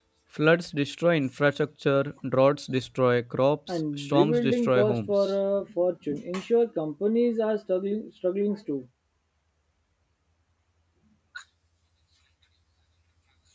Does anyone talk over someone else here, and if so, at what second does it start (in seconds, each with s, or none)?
3.7 s